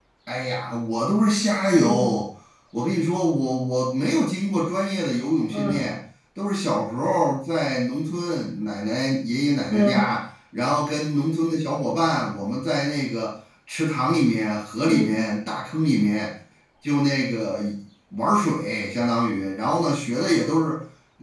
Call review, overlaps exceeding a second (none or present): none